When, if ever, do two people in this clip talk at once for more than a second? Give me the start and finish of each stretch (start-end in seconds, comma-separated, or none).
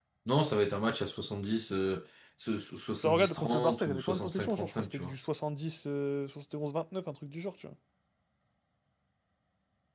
3.0-5.2